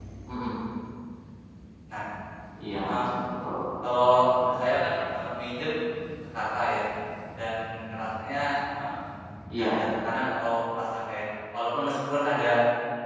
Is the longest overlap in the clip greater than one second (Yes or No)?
No